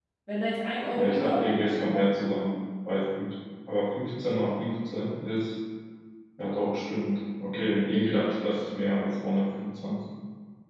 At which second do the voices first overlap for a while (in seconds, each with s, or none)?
0.9 s